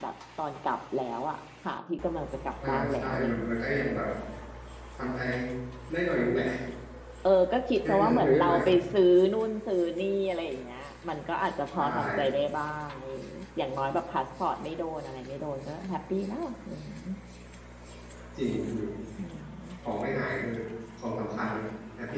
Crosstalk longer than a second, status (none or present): present